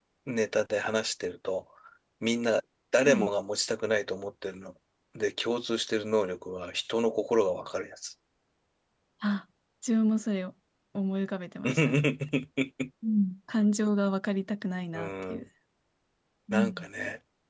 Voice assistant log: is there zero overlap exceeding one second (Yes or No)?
Yes